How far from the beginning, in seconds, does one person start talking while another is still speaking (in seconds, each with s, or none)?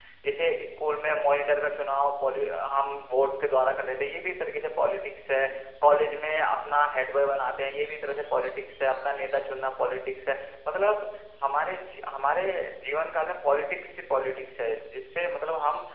none